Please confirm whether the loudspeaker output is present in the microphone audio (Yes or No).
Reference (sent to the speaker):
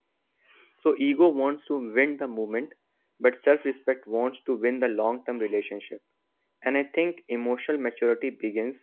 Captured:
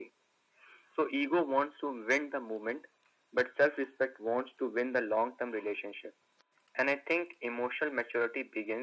Yes